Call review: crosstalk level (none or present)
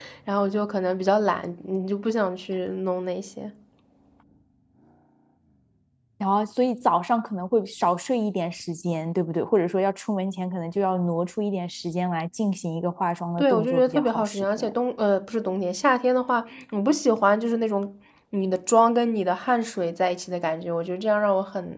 present